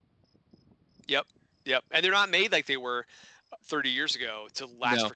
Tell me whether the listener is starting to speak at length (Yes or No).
No